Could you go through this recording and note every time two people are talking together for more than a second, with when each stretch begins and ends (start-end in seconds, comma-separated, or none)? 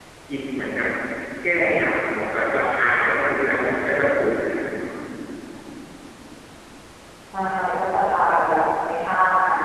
none